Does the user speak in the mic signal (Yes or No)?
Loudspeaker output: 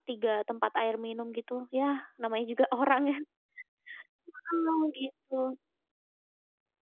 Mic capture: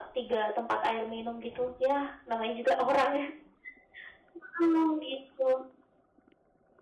No